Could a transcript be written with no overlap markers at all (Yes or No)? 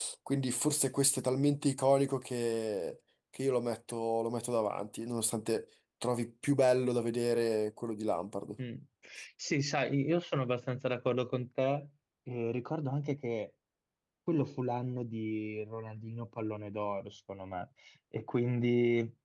Yes